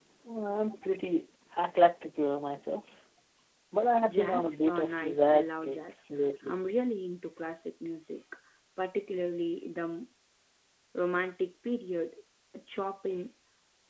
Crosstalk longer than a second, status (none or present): present